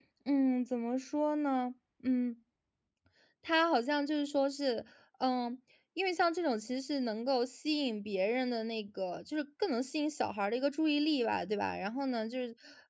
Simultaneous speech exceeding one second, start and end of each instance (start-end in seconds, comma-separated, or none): none